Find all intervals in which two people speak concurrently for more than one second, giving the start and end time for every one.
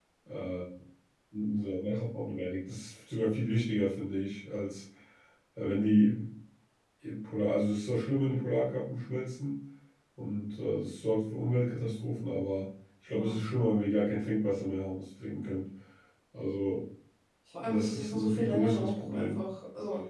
17.6-19.4

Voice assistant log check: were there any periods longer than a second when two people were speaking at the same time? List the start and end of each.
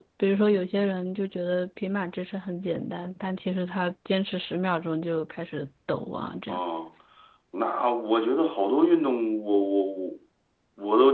none

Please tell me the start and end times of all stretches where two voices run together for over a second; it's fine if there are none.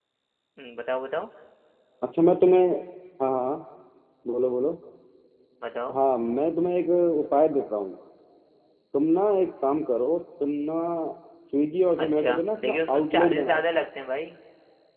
12.0-13.6

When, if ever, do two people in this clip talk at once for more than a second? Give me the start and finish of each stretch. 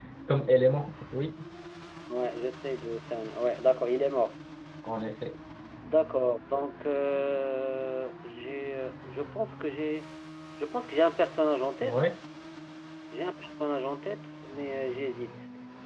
none

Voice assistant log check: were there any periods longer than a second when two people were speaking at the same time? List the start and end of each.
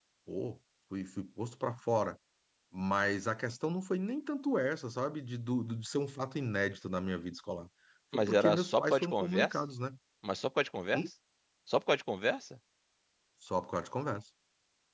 8.1-9.6

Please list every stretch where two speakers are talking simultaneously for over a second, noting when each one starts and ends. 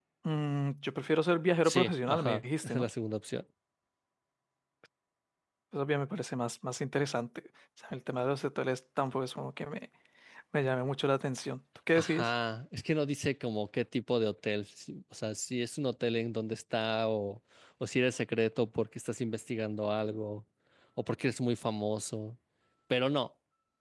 1.6-2.8

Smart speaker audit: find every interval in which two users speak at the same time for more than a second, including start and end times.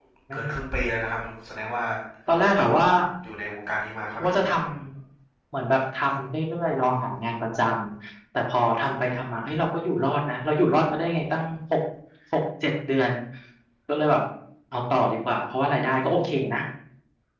none

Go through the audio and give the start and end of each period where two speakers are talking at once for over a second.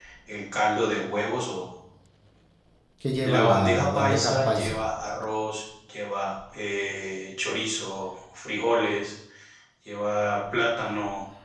3.2-4.8

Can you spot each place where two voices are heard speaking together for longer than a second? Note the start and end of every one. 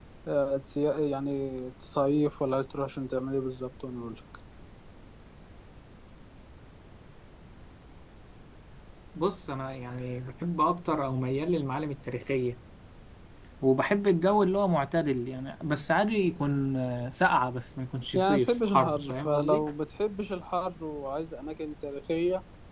18.2-19.6

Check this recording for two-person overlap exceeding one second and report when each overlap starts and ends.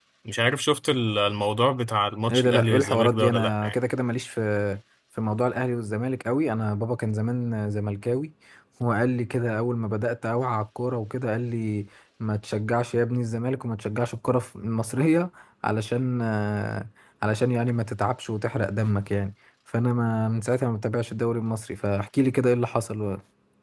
2.3-3.7

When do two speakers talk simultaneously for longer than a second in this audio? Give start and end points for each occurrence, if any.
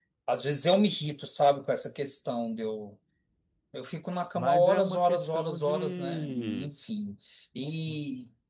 4.4-6.7

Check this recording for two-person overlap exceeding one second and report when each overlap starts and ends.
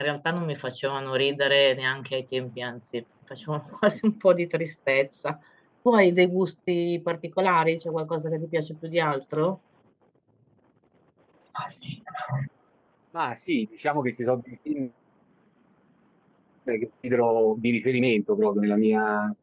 none

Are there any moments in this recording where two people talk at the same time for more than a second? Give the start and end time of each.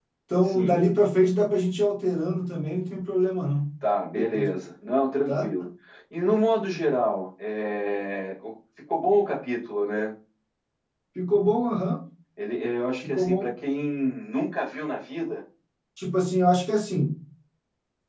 none

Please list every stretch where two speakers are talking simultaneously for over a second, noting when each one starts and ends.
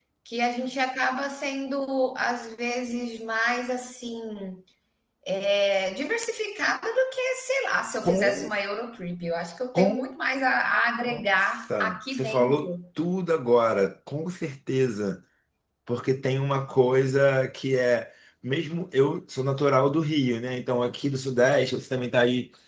11.1-12.7

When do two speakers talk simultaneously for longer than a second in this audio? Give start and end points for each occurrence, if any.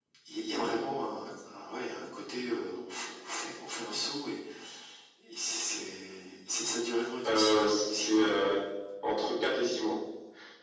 7.2-8.5

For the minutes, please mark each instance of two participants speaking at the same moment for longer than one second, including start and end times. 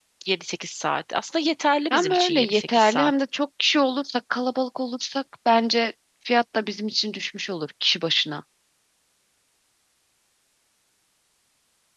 1.9-3.1

